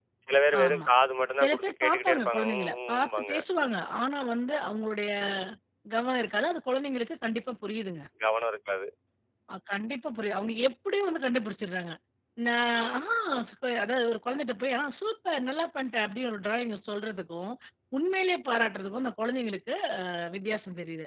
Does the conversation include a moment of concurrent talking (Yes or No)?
Yes